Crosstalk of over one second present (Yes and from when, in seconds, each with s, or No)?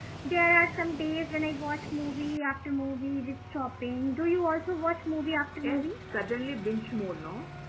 No